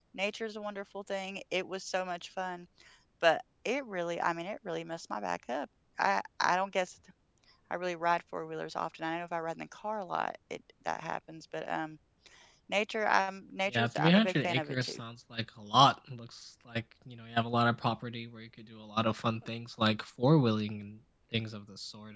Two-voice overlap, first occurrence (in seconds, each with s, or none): 13.7 s